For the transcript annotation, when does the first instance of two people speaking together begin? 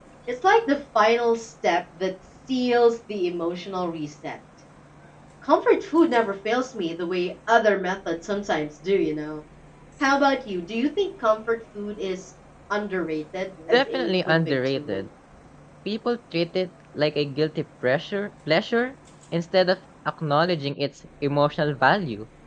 14 s

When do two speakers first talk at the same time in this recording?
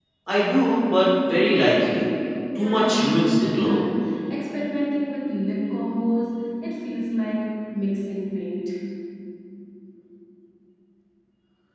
3 s

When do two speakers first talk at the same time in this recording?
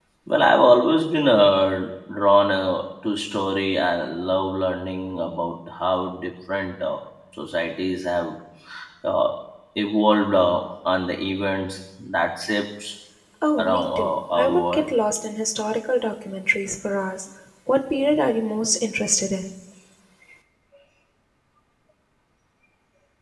14 s

